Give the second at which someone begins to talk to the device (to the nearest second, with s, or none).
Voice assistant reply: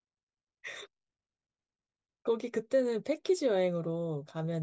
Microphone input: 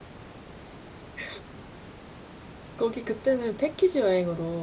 none